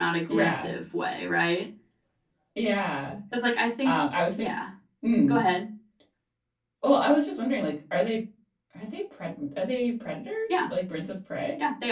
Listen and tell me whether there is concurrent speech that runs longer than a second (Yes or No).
No